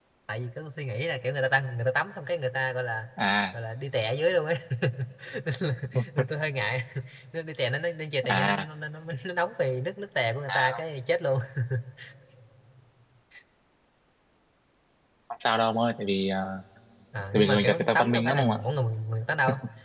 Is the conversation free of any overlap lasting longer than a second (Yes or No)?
No